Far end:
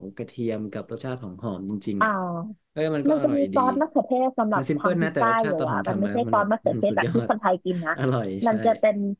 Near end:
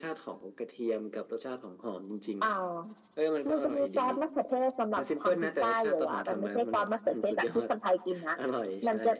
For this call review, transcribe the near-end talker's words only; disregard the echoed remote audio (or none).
none